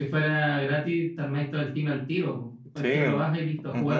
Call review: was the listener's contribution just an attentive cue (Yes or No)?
No